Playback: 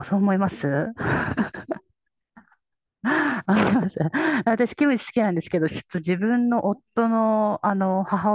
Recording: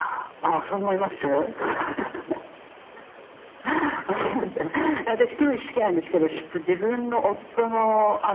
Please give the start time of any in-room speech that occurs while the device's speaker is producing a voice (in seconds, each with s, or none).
none